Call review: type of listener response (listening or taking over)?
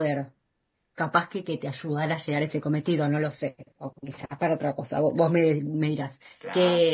listening